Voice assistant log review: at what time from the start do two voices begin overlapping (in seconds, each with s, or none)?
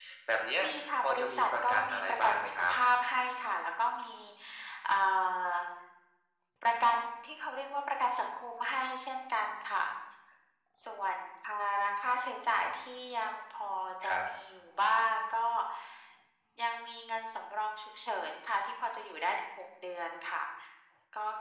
1.0 s